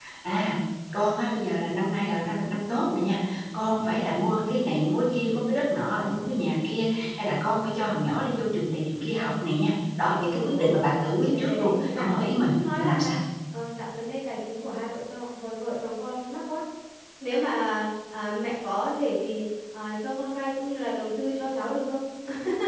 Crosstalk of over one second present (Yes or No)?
Yes